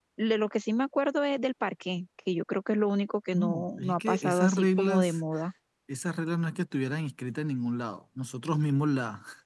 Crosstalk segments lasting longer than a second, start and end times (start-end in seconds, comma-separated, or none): 3.3-5.2